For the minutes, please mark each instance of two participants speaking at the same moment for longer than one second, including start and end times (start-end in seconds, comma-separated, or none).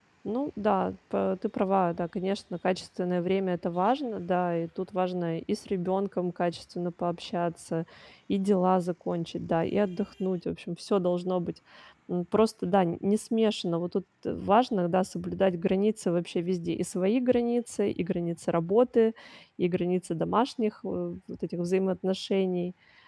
none